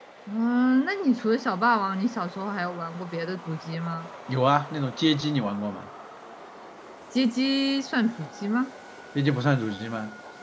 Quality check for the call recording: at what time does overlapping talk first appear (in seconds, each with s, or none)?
none